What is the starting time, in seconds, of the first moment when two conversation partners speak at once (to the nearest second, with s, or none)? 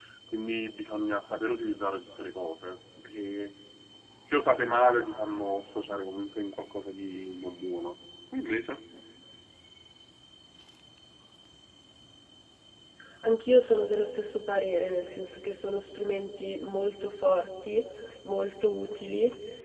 none